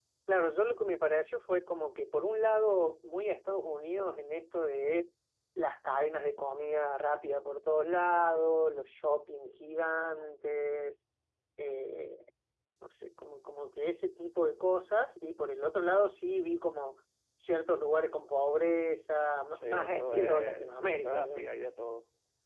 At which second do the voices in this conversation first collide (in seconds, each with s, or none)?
19.6 s